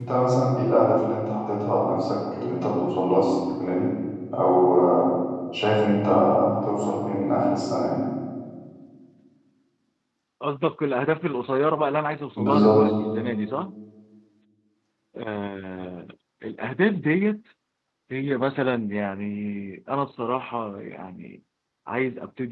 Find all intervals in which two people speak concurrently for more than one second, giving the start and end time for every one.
none

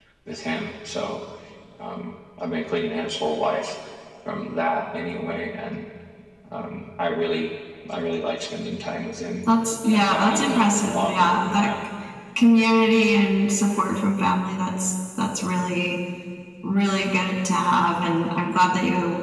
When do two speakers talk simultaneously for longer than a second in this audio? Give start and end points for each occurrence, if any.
9.9-11.7

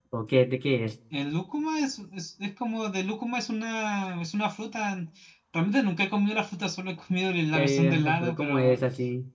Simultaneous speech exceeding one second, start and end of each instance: 7.5-8.8

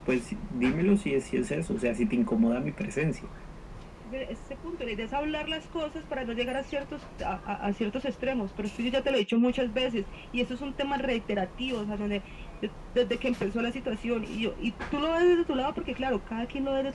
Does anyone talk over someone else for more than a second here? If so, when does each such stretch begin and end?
none

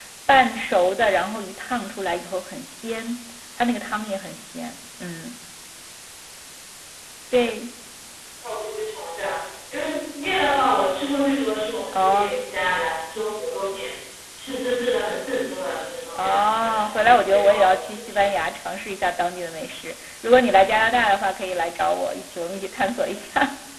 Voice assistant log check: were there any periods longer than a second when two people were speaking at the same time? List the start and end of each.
16.1-18.3

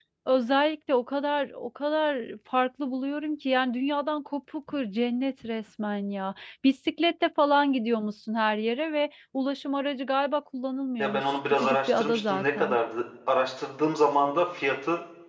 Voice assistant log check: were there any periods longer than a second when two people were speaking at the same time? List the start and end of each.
11.0-12.8

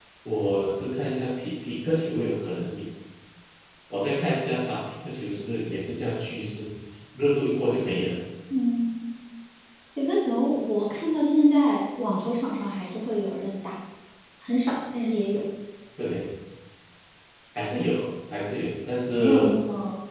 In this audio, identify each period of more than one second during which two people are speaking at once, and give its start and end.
none

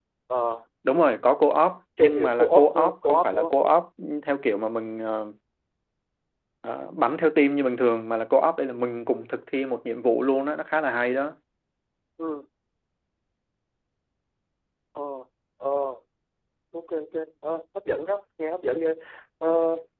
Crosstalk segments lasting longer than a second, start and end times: 2.0-3.5

